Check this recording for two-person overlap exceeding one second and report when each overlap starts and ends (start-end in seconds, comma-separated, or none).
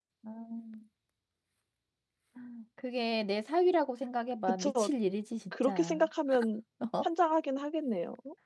none